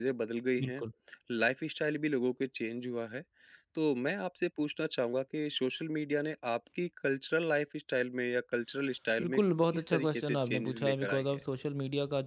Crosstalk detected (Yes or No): Yes